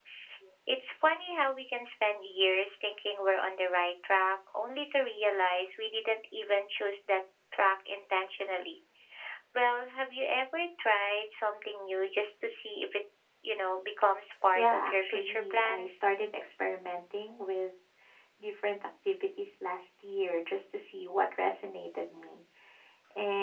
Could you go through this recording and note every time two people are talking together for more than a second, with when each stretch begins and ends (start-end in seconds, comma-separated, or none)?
14.6-16.0